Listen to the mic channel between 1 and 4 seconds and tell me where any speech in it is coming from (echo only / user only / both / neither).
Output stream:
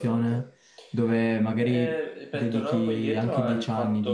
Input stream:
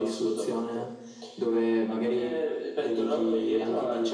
echo only